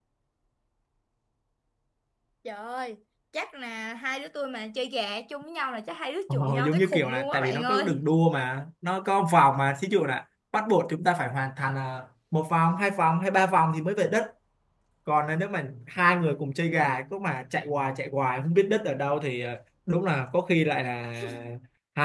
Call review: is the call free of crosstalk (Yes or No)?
No